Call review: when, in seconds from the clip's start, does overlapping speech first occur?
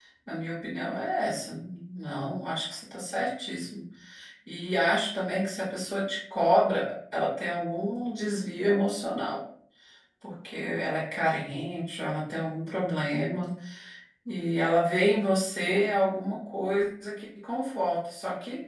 none

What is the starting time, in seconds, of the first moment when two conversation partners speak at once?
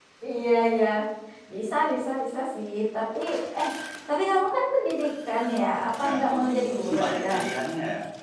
6.0 s

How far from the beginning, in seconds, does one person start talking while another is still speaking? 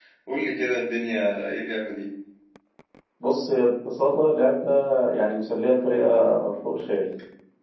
none

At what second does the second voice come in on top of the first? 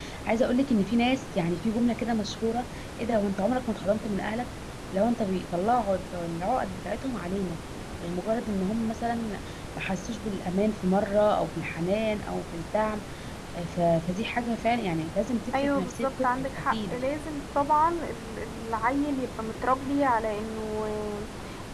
15.5 s

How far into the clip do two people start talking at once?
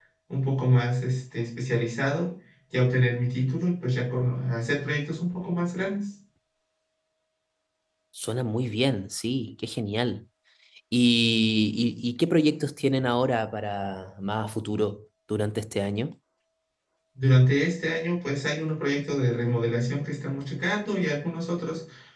none

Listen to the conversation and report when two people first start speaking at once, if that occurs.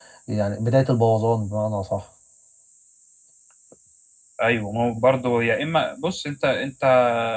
none

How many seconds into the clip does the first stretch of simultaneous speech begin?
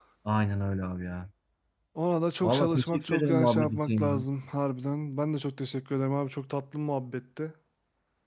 2.4 s

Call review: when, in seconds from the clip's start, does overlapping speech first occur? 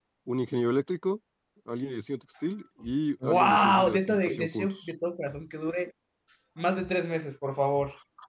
3.3 s

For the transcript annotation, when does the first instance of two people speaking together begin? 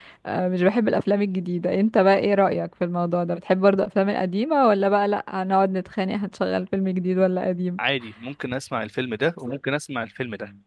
none

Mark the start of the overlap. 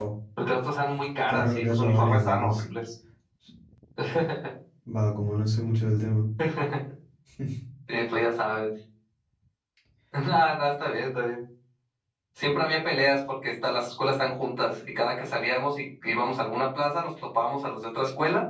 1.3 s

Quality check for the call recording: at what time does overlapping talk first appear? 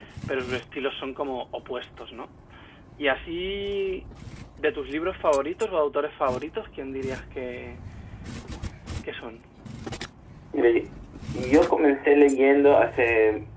none

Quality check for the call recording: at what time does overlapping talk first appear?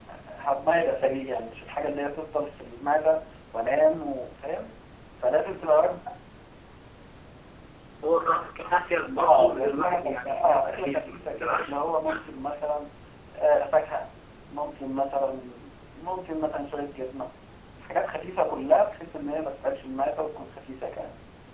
9.2 s

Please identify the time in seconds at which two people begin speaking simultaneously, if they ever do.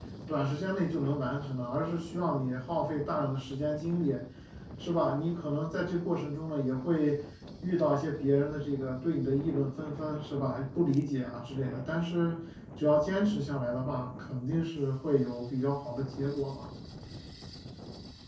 none

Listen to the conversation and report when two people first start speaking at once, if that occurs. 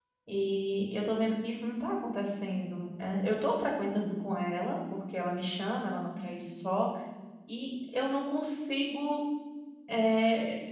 none

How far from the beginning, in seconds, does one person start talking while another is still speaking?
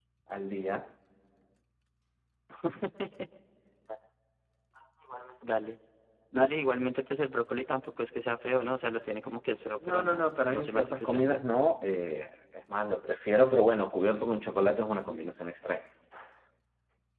9.8 s

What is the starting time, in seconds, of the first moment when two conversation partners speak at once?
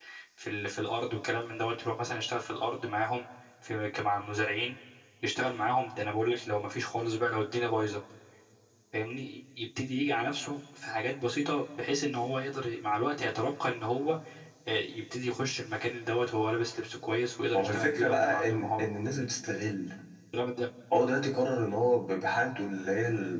17.5 s

